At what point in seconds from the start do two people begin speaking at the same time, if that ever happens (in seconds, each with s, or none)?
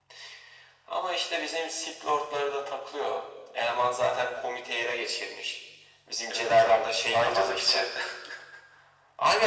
6.3 s